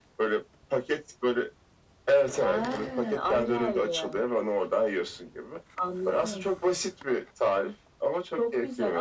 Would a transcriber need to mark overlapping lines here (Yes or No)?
Yes